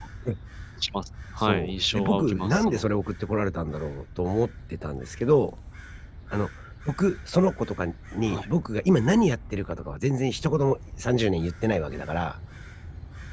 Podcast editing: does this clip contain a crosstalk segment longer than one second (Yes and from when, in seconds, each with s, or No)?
Yes, from 1.5 s